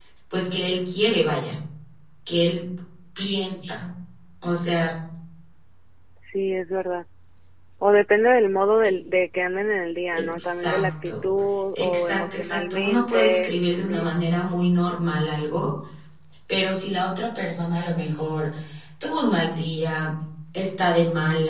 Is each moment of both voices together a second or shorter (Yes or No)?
No